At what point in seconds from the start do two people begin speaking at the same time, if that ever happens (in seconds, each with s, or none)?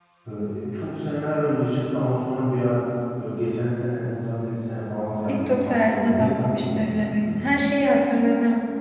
5.3 s